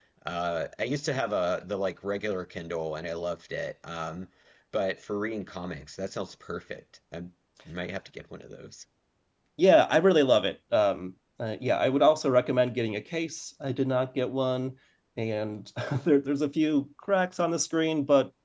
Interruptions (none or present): none